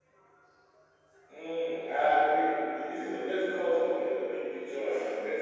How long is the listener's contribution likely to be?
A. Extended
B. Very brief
B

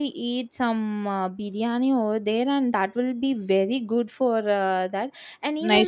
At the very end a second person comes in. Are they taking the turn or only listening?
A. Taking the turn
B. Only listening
A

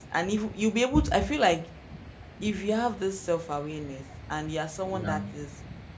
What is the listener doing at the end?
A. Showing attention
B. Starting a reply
A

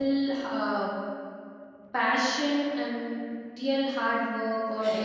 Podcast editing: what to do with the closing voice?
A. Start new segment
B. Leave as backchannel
B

